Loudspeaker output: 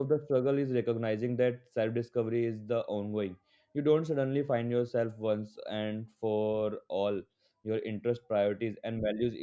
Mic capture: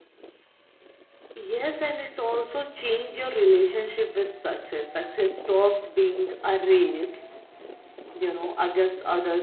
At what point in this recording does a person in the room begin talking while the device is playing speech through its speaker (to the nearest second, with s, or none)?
1 s